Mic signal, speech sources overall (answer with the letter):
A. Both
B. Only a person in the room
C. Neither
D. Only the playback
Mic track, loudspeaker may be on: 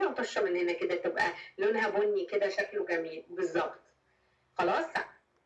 D